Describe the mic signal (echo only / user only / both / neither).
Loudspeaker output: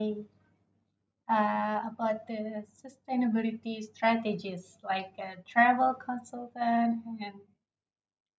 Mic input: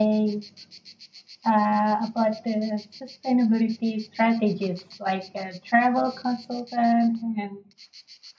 echo only